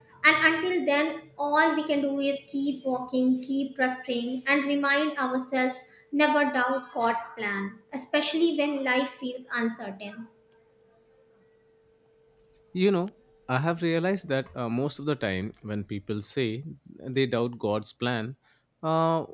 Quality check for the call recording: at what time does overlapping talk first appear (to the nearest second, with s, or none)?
none